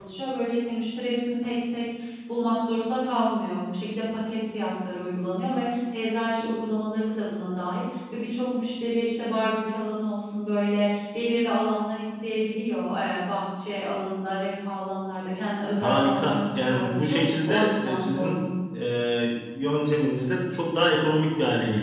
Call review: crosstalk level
present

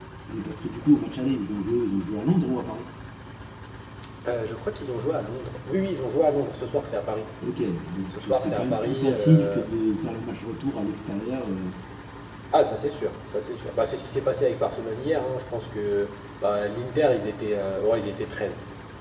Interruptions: present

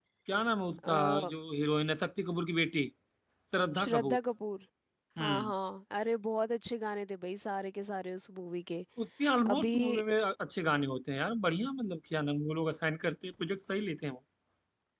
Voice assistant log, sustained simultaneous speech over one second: none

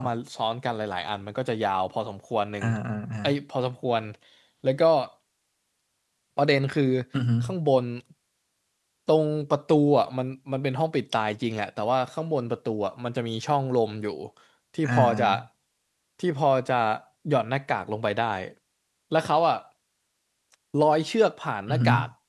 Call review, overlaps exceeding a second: none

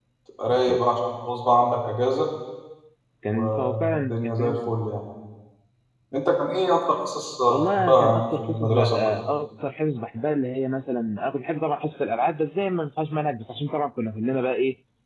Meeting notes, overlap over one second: present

